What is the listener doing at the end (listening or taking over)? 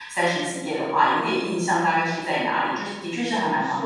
taking over